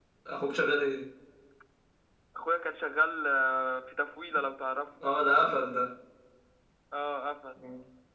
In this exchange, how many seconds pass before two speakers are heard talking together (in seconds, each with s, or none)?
none